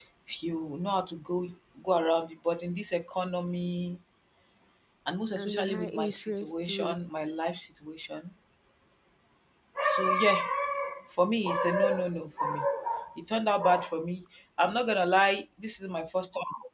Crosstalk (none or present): present